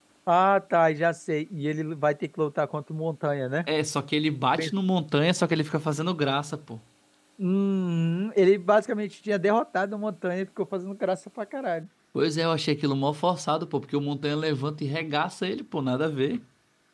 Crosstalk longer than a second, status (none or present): none